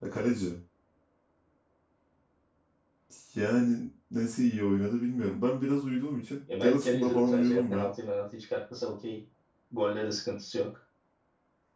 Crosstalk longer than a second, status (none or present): present